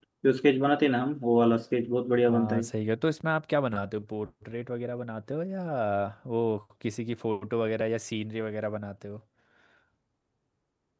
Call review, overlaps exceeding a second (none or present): none